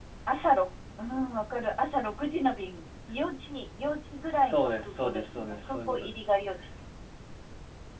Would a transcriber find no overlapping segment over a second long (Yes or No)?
No